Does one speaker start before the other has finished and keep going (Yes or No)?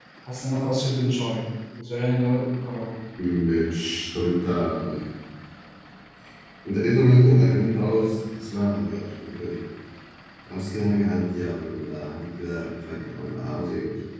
No